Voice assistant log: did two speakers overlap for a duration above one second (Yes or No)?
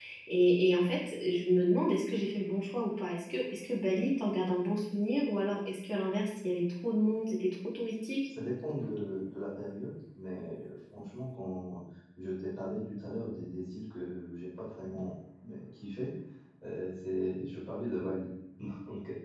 No